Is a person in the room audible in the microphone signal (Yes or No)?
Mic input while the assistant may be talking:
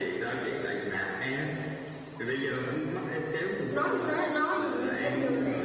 Yes